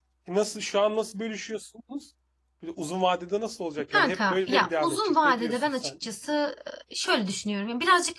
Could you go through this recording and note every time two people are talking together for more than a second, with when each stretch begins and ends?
3.9-5.9

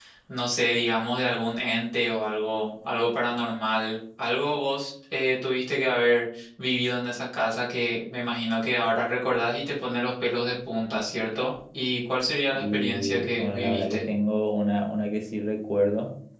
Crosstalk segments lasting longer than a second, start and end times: 12.6-14.0

